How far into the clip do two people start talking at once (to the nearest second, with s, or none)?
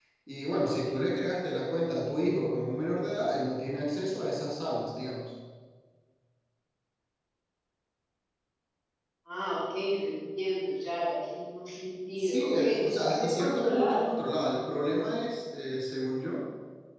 12 s